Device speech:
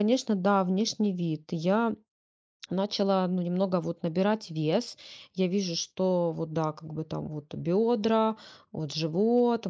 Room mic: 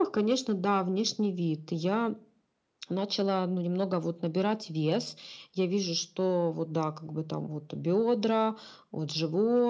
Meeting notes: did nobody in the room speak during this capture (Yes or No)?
Yes